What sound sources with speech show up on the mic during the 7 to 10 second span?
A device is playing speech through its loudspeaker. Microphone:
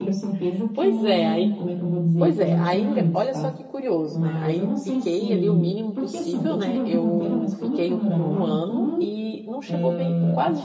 both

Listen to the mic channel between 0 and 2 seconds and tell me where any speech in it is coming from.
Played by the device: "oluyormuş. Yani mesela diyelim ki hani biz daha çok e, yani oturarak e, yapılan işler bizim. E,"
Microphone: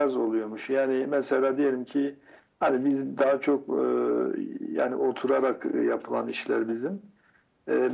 echo only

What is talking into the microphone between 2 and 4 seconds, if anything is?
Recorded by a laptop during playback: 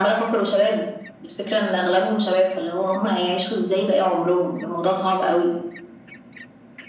echo only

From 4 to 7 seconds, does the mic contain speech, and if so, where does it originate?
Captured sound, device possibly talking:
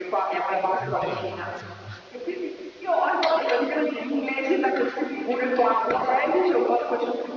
echo only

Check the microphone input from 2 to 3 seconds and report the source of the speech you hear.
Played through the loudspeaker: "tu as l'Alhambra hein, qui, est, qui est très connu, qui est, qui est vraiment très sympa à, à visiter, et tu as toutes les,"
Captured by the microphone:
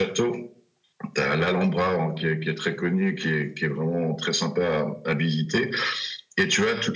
echo only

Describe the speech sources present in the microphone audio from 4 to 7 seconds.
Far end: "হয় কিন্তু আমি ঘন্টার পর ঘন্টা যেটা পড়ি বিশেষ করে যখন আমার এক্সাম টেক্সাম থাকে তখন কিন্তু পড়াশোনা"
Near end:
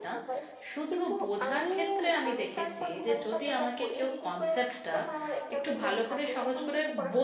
both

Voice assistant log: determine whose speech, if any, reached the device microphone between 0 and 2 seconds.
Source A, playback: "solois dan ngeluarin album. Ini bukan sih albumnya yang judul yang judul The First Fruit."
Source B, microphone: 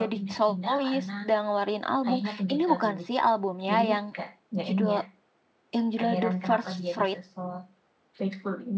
both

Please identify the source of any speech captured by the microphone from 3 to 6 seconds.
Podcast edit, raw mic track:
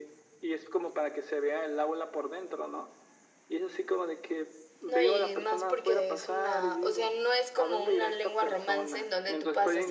both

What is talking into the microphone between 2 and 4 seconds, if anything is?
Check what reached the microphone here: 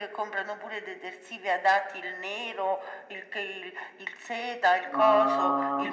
echo only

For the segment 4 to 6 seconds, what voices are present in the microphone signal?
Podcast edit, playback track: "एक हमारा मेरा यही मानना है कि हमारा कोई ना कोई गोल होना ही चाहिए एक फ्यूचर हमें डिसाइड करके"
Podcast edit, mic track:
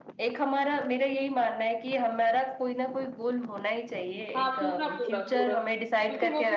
both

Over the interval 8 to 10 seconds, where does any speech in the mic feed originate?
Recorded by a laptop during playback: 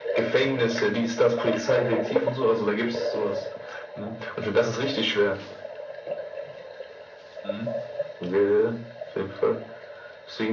echo only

